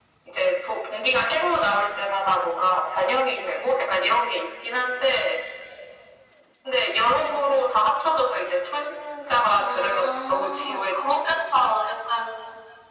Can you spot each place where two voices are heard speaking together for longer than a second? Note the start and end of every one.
9.6-11.2

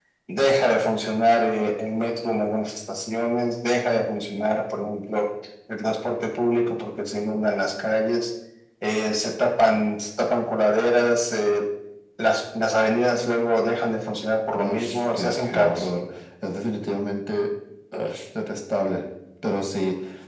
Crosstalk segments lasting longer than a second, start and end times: 14.6-15.8

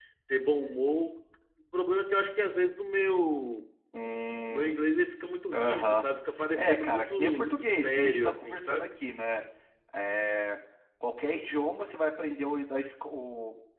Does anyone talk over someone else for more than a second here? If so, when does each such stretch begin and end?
6.5-9.0

